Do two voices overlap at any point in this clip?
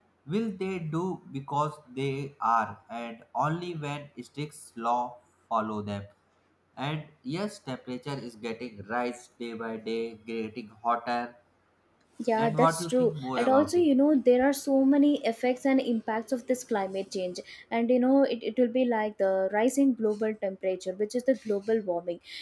Yes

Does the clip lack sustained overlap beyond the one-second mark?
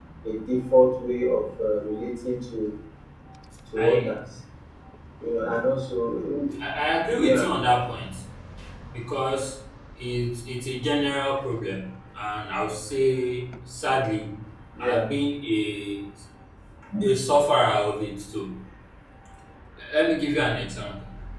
Yes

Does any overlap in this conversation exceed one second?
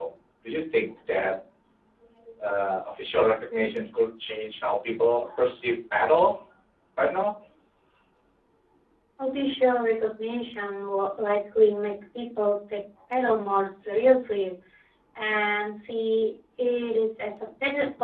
No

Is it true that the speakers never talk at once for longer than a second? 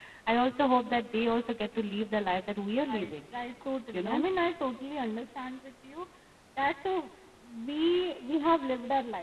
Yes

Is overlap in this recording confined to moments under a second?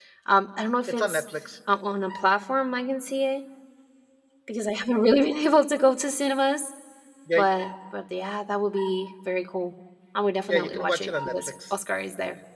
No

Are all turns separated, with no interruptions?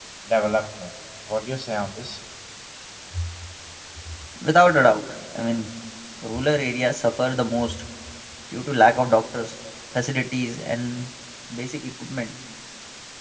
Yes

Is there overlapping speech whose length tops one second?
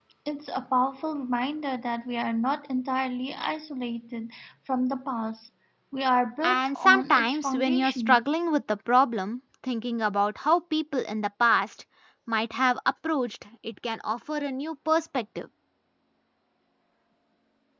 Yes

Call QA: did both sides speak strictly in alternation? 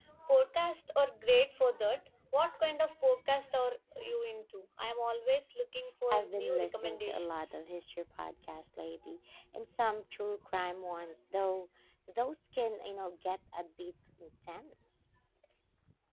No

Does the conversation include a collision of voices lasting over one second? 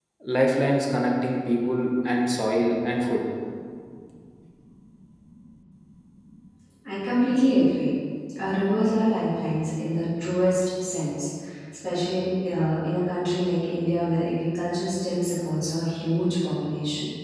No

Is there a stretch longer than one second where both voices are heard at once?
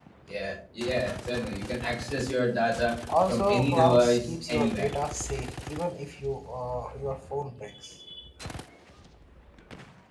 Yes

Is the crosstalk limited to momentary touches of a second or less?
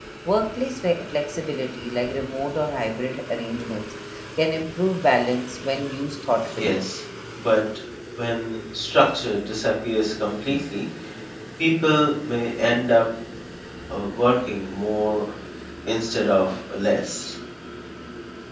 Yes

